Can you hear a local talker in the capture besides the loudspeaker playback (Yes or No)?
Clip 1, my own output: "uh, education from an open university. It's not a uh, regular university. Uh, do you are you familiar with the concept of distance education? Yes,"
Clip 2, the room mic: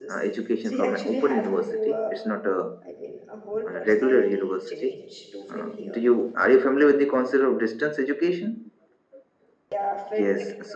Yes